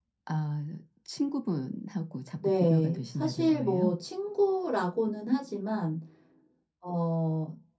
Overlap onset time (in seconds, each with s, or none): 2.4 s